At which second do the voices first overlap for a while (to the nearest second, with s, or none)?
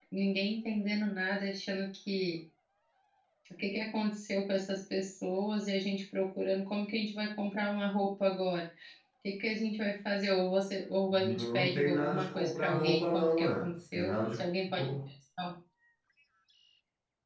11 s